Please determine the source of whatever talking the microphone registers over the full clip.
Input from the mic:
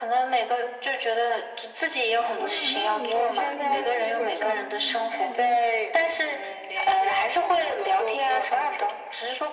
both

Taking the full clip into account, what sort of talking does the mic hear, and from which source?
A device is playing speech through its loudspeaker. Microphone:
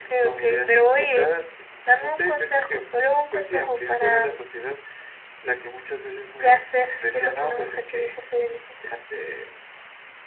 echo only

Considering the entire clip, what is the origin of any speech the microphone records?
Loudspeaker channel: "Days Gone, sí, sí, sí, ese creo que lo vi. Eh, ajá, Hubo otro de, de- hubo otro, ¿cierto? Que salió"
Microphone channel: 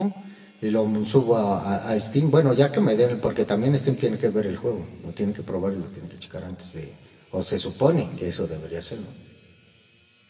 user only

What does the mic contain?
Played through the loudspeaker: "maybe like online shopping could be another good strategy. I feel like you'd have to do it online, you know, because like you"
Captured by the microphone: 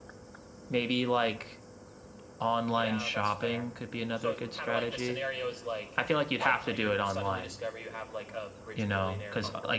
both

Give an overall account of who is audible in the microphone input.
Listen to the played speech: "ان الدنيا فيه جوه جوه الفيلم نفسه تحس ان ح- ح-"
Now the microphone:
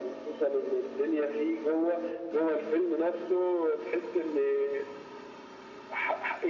echo only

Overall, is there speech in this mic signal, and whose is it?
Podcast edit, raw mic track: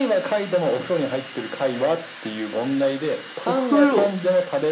both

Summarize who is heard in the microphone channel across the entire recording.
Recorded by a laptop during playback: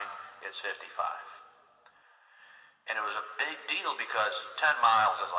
echo only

